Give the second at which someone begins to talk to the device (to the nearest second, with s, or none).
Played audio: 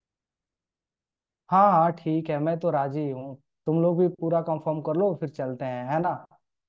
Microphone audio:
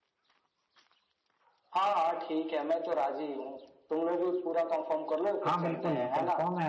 5 s